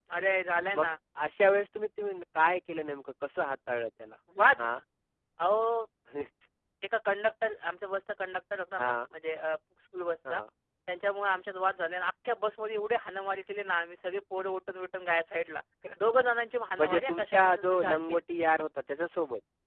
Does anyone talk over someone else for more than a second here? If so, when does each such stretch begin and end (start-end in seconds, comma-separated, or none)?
16.8-18.2